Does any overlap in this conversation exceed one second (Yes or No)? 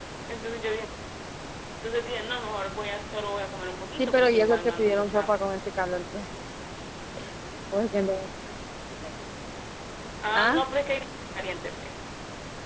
Yes